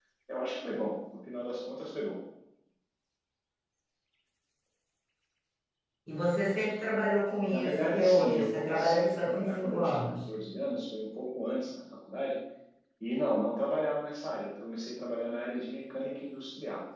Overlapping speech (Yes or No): Yes